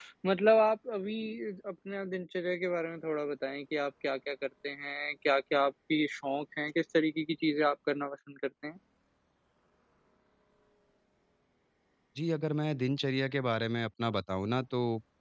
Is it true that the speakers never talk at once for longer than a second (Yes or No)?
Yes